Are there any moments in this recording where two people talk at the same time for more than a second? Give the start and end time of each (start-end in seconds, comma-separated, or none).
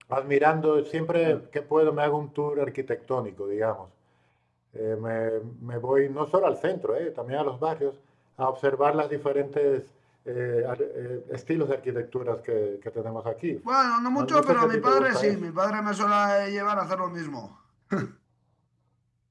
14.2-15.4